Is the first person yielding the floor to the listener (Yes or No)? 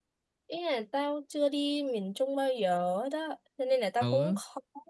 No